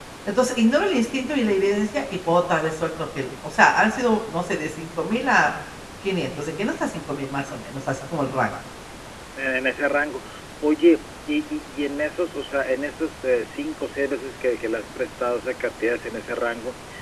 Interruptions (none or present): none